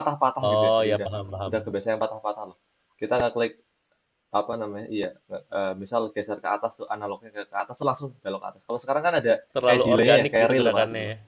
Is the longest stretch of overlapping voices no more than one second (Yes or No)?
No